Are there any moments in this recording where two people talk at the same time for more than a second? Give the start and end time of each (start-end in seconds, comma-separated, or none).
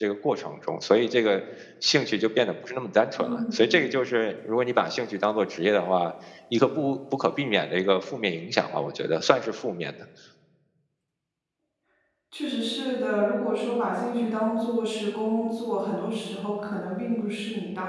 none